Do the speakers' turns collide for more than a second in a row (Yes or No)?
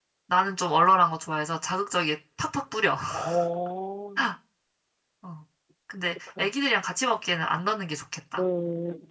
No